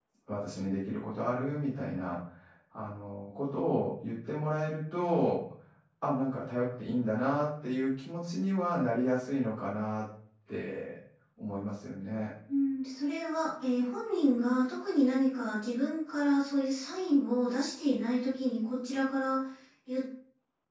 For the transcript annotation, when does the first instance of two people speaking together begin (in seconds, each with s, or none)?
none